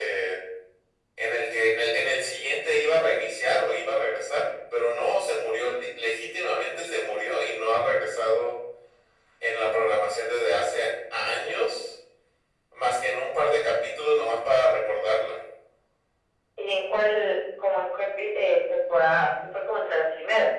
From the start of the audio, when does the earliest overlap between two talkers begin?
none

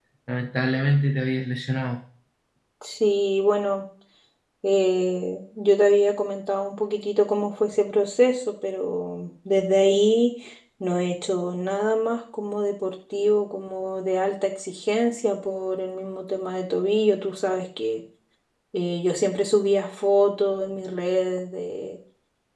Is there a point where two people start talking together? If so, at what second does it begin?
none

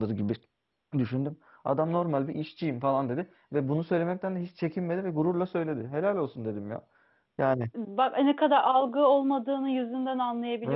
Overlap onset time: none

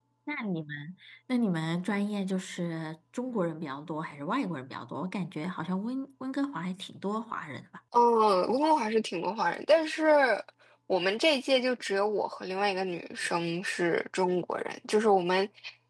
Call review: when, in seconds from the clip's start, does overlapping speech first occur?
none

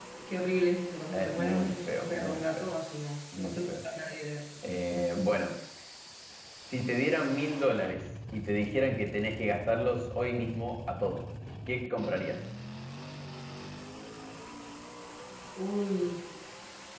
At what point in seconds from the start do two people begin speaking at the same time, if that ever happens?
1.1 s

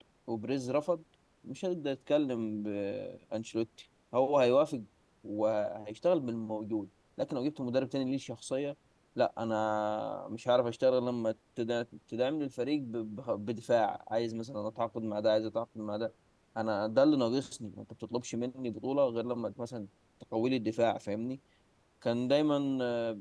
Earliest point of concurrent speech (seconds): none

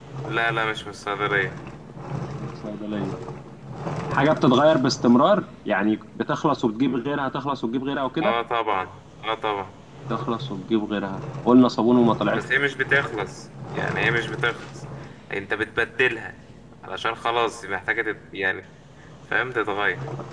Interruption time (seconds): none

